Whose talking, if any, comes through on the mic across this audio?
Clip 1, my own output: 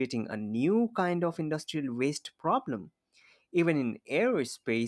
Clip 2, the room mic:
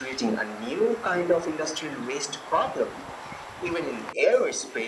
echo only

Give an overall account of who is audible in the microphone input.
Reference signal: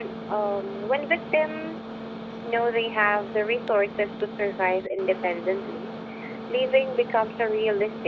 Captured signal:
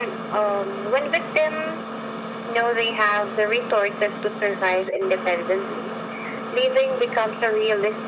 echo only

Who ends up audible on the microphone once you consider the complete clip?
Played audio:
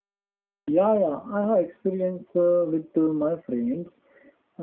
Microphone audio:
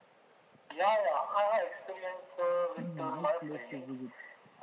both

